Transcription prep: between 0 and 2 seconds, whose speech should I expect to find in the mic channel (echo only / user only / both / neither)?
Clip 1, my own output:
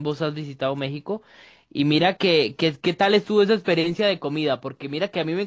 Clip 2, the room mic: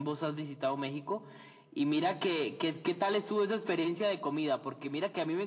echo only